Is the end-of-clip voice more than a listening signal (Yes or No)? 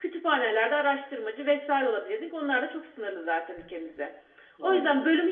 No